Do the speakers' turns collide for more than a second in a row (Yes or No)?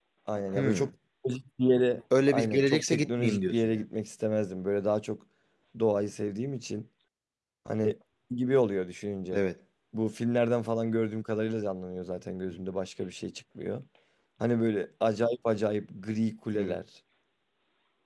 Yes